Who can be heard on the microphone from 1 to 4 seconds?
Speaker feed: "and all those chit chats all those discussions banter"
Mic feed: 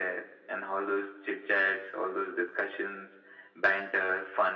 echo only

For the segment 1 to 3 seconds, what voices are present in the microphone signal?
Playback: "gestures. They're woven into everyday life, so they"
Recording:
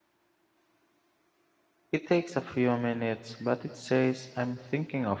user only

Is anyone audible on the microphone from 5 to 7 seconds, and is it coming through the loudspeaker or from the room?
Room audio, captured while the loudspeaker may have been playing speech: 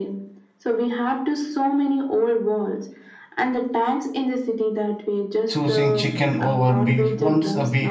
both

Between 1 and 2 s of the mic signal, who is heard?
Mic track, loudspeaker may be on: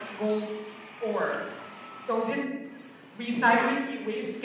echo only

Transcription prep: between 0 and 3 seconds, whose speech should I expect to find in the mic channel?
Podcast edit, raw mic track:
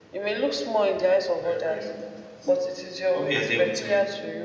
both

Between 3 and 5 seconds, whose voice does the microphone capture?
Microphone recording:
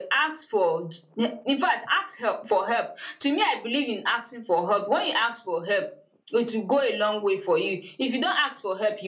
echo only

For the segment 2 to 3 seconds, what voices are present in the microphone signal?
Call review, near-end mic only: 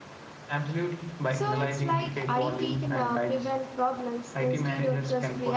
both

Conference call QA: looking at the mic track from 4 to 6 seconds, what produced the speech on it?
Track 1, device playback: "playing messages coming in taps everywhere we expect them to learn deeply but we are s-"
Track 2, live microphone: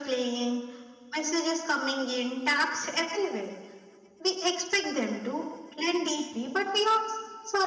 echo only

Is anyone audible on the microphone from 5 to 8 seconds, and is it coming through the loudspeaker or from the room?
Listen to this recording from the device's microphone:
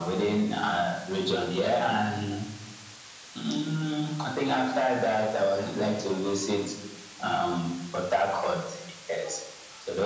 echo only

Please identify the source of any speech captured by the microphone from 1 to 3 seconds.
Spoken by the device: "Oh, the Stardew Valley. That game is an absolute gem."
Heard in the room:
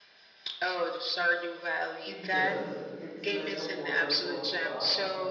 both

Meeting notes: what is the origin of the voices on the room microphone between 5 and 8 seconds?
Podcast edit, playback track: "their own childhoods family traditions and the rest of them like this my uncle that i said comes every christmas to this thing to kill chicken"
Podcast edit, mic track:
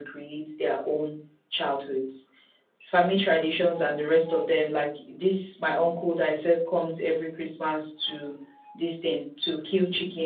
echo only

